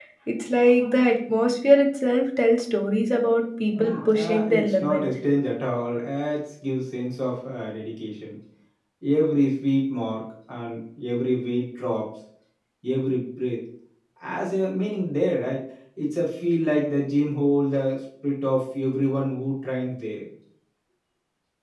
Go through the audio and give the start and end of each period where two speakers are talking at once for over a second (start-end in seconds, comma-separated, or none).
3.8-5.0